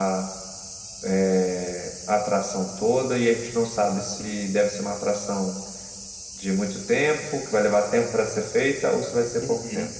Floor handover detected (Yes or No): Yes